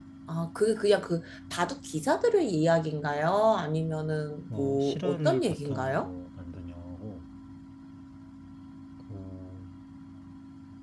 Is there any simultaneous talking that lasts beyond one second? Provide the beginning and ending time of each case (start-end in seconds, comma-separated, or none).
4.5-6.1